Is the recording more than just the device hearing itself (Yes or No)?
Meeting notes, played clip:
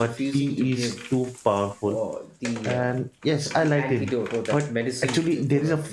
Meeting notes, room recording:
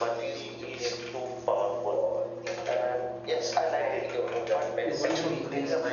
Yes